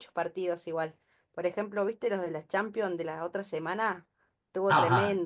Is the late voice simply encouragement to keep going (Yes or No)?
No